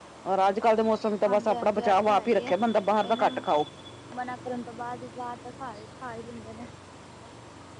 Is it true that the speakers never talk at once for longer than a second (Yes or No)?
No